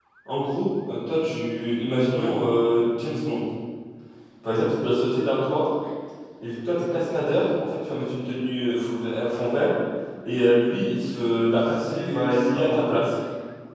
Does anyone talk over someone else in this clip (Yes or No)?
Yes